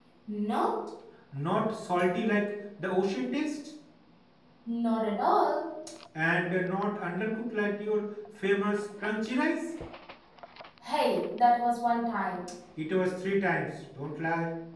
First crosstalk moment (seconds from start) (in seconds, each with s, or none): none